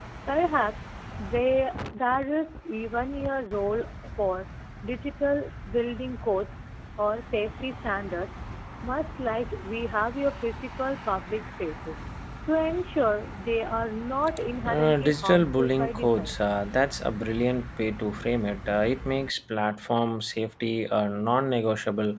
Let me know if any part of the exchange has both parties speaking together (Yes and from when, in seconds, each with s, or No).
Yes, from 14.7 s